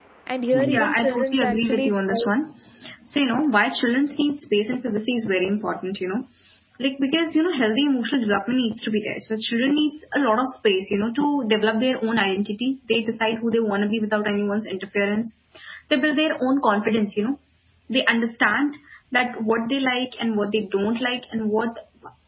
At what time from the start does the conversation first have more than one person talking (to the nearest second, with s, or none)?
1 s